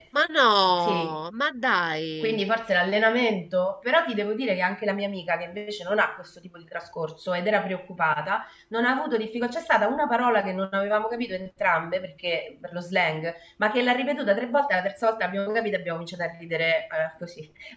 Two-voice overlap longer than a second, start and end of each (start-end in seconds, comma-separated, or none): none